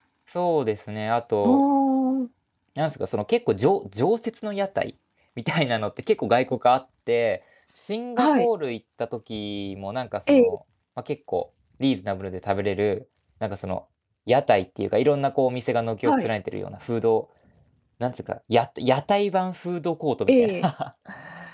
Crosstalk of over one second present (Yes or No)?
No